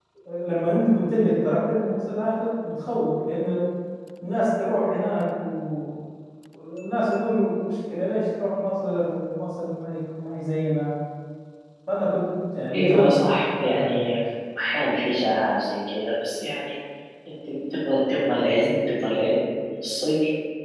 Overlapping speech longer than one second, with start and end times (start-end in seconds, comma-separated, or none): 12.7-13.9